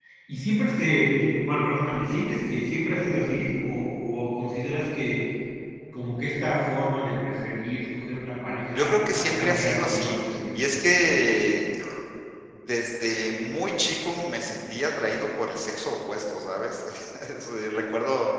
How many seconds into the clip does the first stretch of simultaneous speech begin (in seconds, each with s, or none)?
8.8 s